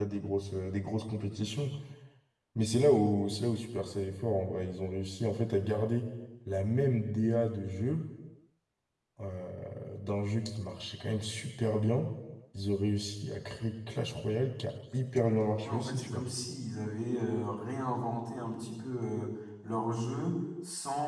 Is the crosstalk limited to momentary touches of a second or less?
Yes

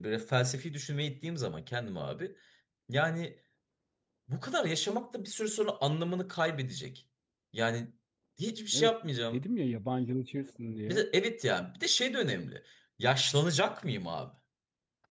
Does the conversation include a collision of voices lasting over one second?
No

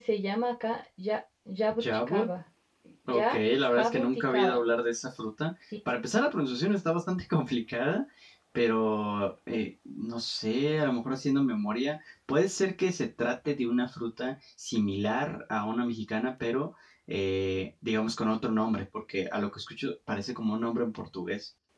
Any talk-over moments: Yes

